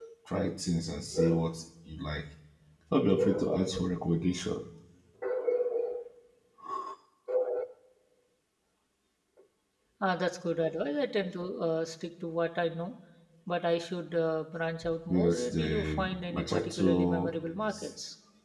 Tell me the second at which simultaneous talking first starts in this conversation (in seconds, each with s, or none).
15.1 s